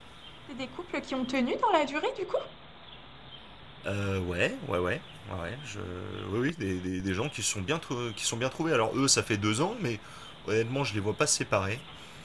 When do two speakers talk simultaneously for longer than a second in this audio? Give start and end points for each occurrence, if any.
none

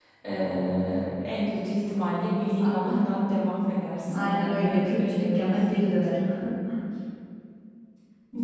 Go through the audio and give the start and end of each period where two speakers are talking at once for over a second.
4.1-5.5

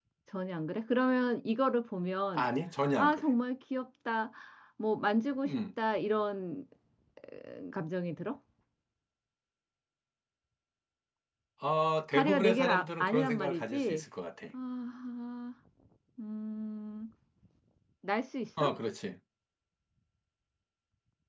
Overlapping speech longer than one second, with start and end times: 12.1-14.0

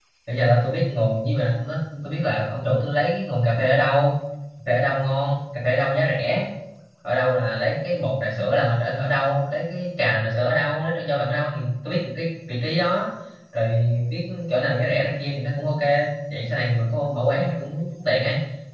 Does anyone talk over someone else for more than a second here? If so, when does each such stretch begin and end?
none

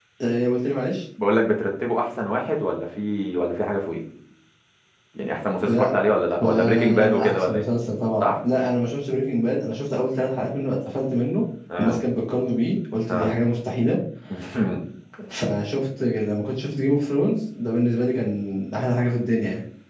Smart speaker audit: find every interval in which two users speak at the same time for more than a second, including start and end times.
6.4-7.6

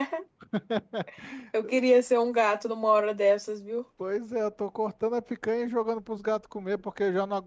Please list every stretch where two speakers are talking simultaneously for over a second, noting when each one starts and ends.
none

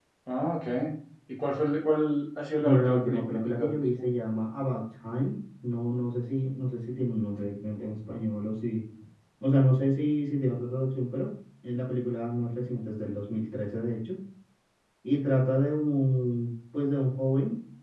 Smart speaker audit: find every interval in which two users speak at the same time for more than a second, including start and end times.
2.6-3.8

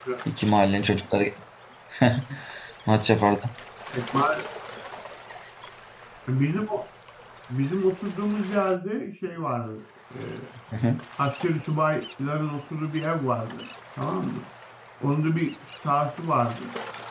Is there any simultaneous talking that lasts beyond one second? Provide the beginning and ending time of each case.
none

